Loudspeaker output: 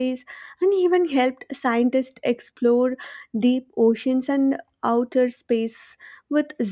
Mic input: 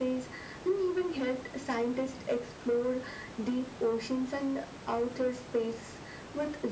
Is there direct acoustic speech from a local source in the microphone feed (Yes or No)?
No